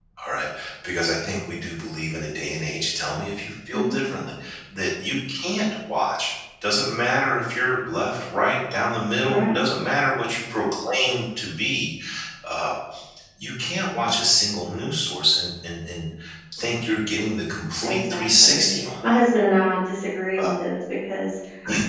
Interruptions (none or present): present